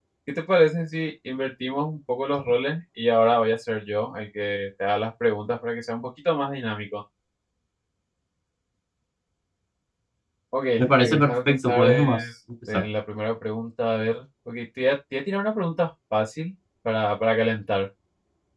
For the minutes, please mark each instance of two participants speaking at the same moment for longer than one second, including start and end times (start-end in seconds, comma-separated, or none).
10.8-12.2